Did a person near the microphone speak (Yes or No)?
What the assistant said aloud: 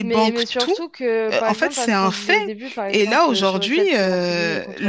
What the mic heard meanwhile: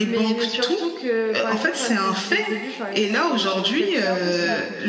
Yes